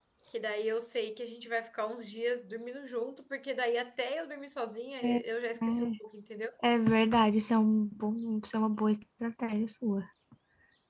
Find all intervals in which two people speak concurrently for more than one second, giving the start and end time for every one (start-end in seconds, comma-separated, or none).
none